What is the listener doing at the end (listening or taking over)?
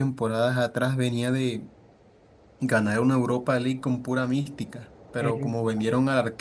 listening